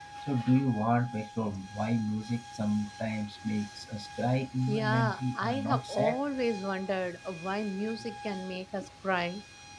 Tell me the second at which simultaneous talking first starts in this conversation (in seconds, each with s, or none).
4.7 s